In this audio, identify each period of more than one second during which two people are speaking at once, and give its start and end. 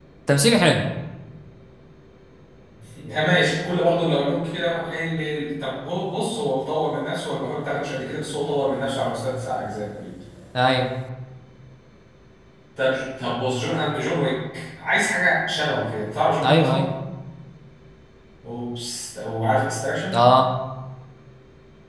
none

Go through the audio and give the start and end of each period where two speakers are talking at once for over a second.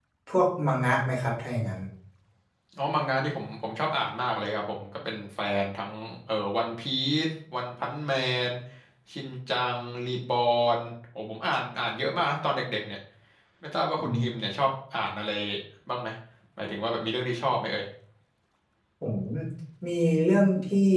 none

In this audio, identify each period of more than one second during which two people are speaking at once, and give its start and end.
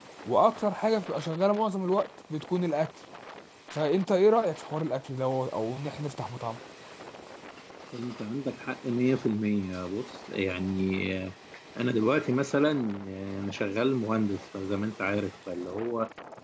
none

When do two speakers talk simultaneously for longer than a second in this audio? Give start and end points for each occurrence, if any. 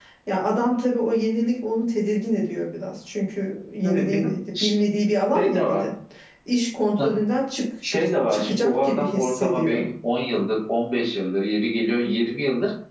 8.3-9.8

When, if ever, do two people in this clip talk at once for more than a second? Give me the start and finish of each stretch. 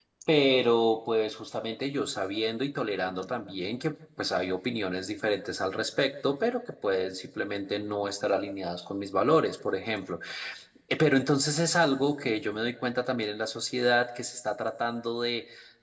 none

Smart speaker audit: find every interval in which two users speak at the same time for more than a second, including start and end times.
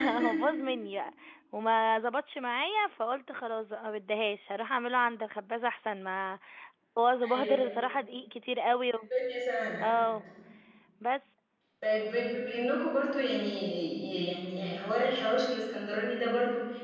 none

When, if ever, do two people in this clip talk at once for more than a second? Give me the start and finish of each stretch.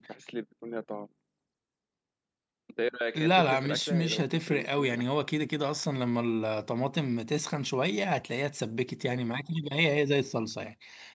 3.2-5.0

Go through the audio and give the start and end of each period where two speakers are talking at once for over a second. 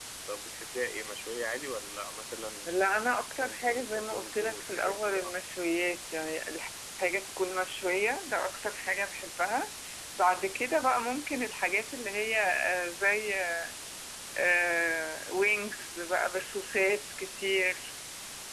3.4-5.3

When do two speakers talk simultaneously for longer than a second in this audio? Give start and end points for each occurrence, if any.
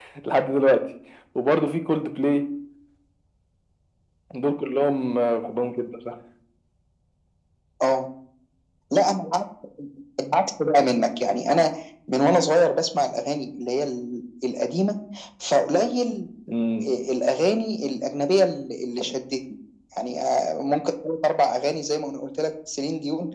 none

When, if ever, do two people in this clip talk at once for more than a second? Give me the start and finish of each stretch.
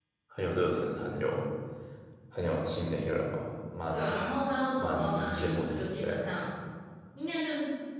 4.8-6.2

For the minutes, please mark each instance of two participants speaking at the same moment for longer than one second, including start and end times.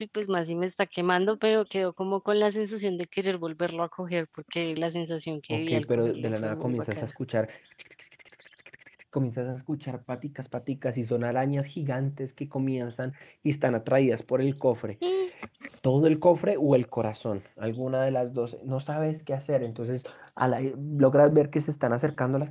5.5-7.1

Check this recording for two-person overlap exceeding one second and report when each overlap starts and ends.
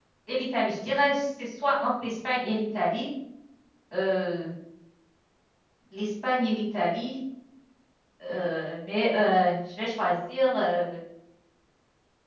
none

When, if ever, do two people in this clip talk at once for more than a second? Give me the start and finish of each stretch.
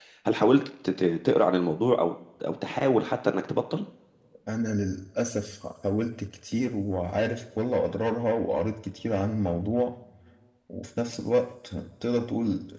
none

